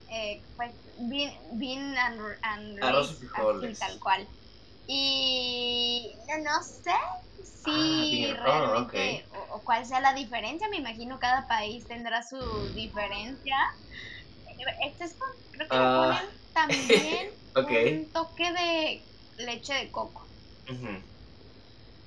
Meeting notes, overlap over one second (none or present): present